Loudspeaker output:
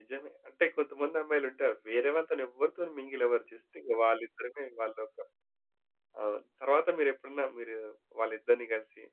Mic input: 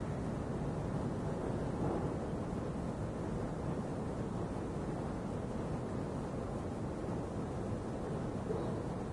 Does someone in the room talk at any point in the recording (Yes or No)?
No